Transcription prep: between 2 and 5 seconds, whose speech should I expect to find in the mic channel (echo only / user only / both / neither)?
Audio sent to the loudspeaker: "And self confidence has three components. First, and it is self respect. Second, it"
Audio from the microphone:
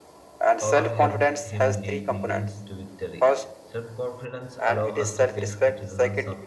both